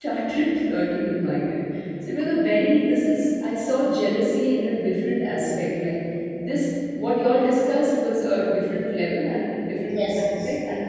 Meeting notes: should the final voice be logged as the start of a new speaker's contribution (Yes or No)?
No